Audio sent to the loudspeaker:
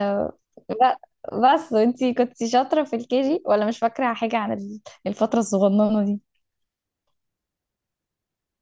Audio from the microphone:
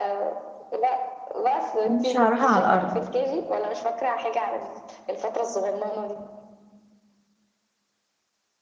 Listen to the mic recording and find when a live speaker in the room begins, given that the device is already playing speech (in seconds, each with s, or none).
1.9 s